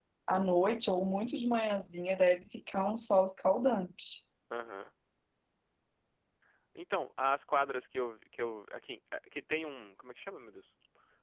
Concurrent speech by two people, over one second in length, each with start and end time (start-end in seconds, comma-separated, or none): none